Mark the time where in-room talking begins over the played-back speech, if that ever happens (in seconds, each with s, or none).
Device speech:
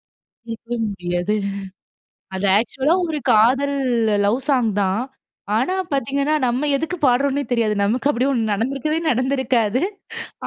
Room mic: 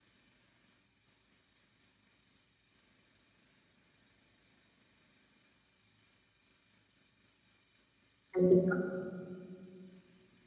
8.3 s